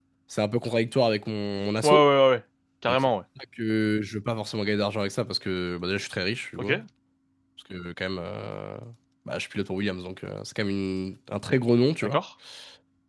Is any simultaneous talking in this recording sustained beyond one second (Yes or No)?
No